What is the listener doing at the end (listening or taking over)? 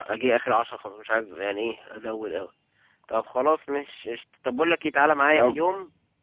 listening